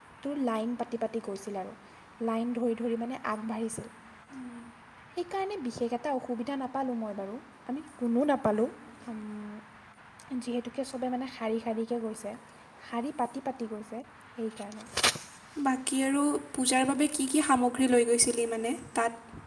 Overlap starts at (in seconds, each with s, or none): none